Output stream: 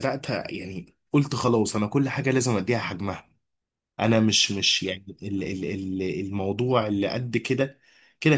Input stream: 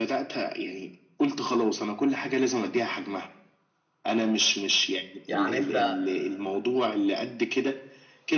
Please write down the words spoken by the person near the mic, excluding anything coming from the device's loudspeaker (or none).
يعني انت